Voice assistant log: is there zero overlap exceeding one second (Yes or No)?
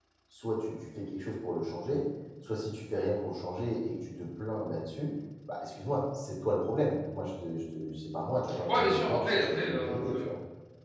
No